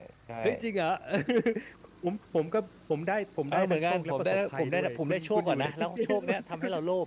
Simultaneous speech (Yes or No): Yes